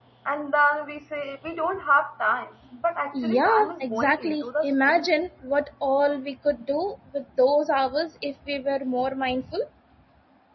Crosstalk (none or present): present